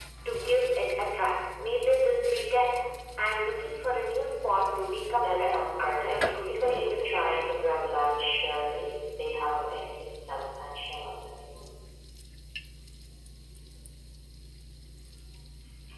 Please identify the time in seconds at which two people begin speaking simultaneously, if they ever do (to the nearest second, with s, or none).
5 s